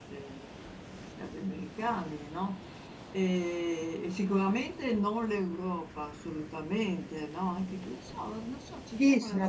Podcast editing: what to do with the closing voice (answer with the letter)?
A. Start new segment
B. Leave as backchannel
A